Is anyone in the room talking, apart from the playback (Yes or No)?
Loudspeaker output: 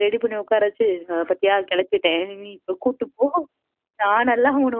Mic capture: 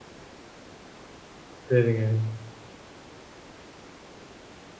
Yes